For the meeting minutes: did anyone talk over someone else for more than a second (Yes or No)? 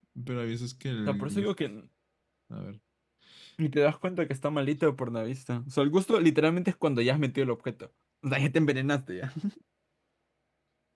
No